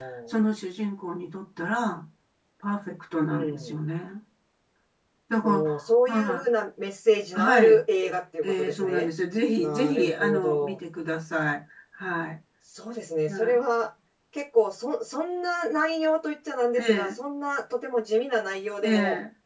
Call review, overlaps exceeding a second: present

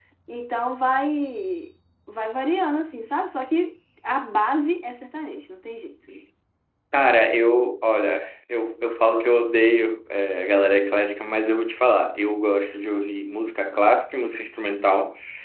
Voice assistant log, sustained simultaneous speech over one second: none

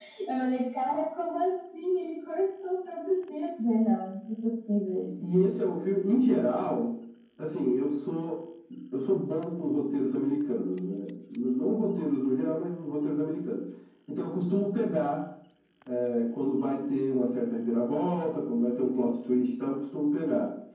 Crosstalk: none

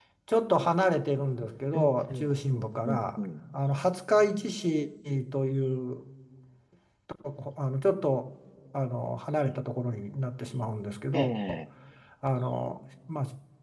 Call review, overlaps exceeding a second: present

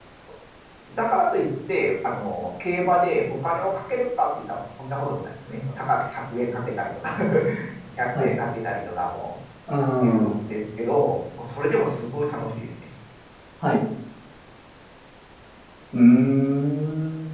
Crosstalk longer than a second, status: none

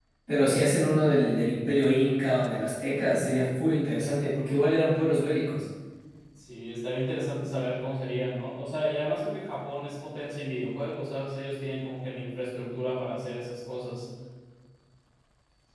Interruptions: none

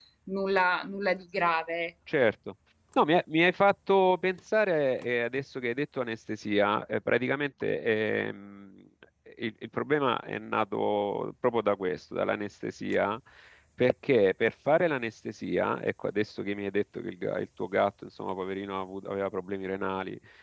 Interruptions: none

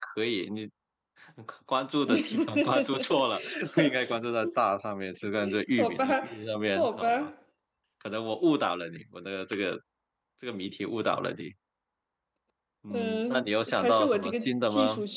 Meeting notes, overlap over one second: present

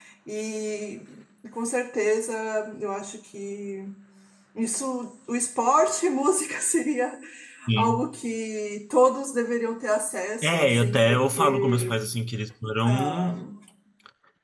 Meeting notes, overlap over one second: present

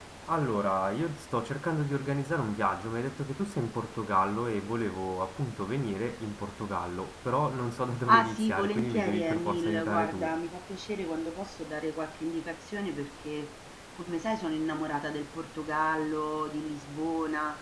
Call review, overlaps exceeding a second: present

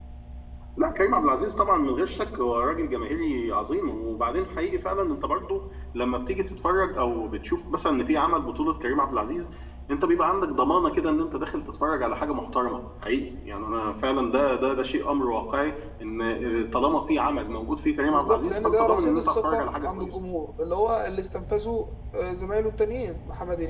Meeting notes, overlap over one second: present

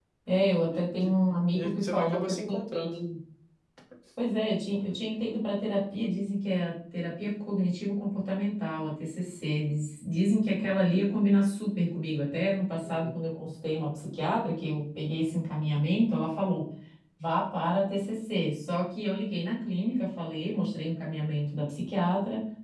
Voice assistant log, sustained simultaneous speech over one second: present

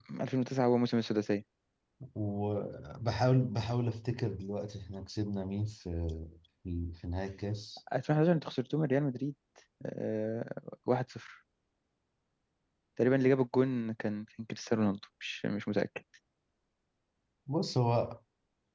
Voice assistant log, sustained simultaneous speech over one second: none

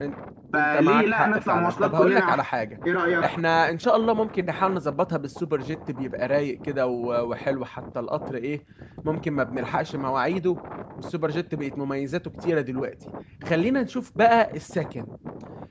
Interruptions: present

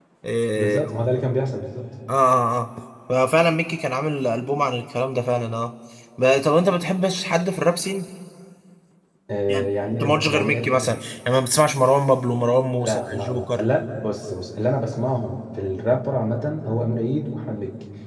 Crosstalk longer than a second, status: present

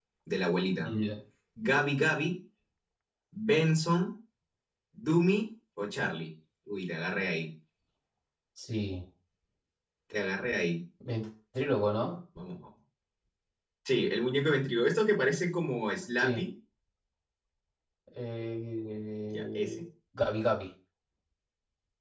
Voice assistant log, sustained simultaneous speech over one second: none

